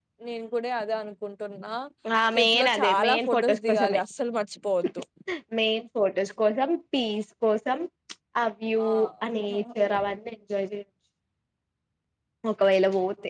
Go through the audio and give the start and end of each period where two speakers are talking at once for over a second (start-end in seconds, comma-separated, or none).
2.4-4.0